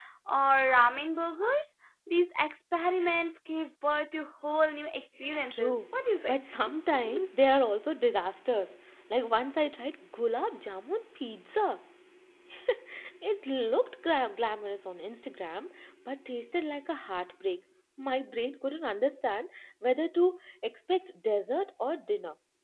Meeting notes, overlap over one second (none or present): none